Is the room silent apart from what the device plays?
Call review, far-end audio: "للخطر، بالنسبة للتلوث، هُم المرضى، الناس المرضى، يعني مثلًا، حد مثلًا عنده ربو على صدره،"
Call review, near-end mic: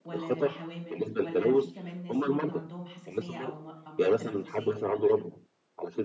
No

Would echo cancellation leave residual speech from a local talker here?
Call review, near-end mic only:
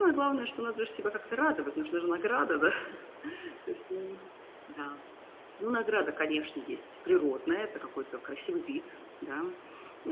Yes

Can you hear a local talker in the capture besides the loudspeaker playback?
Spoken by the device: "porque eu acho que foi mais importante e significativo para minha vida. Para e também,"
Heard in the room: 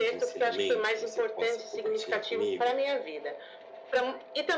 Yes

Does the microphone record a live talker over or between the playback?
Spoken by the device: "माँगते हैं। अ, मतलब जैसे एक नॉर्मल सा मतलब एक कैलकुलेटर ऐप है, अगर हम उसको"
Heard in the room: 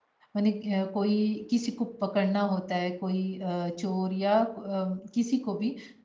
Yes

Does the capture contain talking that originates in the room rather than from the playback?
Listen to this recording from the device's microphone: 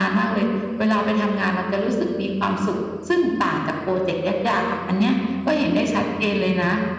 No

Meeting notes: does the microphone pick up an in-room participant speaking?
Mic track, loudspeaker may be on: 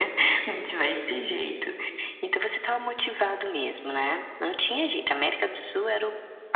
No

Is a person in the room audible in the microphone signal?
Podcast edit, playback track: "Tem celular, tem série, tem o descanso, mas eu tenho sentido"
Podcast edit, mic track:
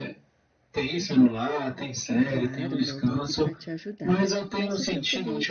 Yes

